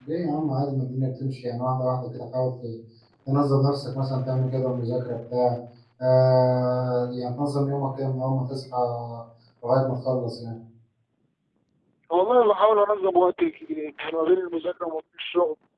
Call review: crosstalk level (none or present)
none